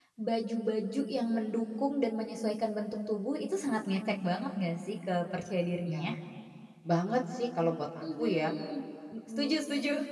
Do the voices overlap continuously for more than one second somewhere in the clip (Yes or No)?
No